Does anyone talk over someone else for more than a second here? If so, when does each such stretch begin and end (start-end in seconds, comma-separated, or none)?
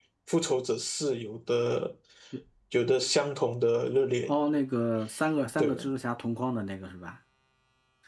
none